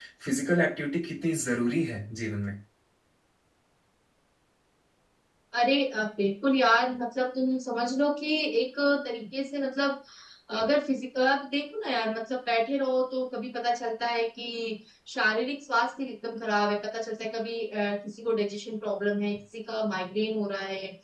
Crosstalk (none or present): none